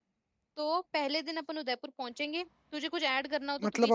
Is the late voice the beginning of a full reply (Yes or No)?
Yes